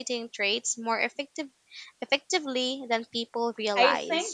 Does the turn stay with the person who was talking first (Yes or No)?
No